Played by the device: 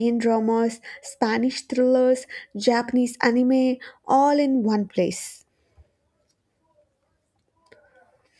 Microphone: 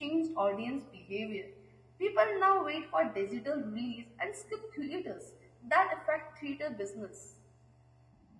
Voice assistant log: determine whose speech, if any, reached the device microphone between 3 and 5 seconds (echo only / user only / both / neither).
user only